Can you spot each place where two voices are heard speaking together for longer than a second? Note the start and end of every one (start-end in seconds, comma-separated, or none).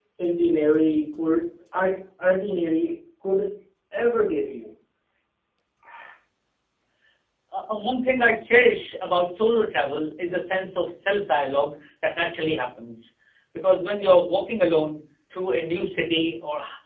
none